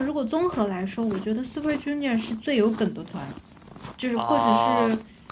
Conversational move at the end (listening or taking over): taking over